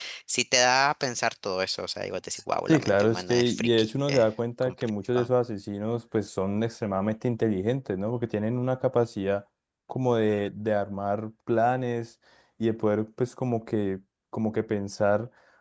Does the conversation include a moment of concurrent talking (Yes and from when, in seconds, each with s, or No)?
Yes, from 2.7 s